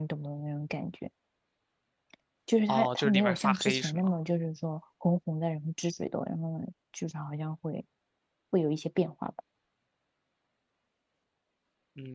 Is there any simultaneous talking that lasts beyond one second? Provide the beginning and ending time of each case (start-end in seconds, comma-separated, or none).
2.7-4.1